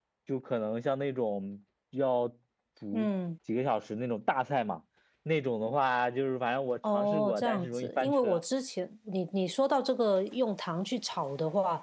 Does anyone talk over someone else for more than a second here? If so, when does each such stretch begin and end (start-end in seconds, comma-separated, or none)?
6.9-8.4